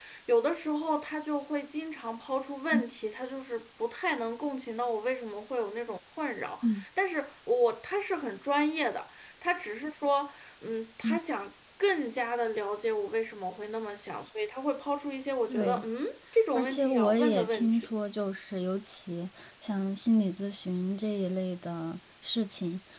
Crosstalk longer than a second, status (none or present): present